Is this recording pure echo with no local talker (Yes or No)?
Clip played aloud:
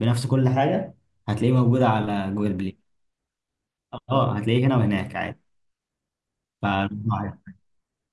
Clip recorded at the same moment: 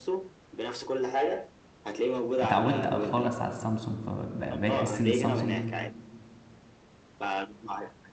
No